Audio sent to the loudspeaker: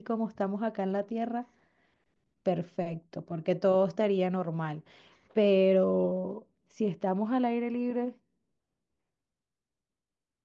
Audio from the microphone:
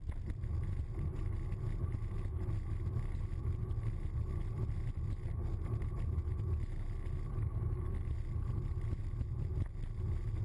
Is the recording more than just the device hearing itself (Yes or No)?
No